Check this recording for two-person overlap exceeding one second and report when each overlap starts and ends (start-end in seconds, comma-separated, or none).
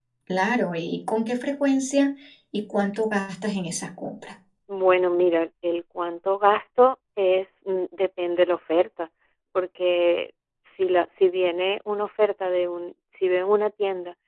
none